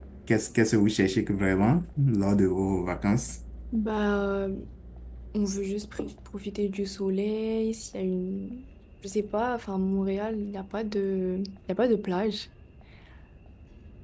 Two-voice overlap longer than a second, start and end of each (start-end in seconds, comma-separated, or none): none